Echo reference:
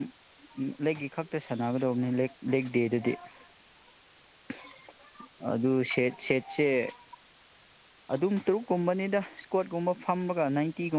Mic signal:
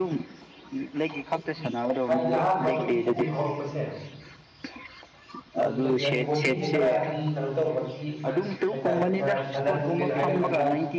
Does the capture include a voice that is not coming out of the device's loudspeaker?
Yes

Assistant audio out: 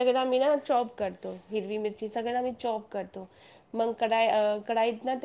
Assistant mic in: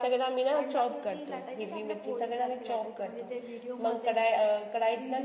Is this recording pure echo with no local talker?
No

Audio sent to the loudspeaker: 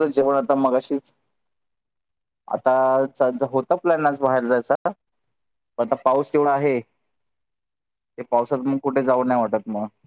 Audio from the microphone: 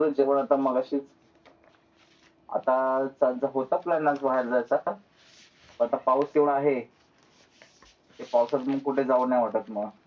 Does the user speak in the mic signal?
No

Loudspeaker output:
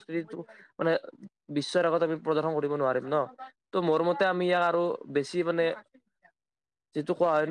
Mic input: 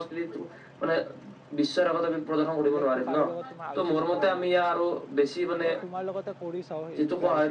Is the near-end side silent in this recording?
No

